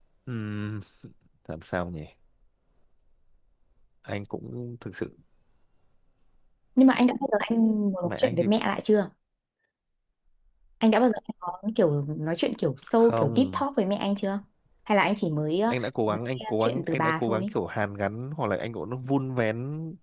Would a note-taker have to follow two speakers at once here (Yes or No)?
Yes